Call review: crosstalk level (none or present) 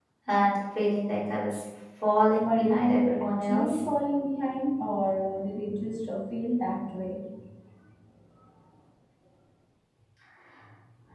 present